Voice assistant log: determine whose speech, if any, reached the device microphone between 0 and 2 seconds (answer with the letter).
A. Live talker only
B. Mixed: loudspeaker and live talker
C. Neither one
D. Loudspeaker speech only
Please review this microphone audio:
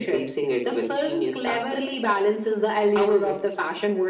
D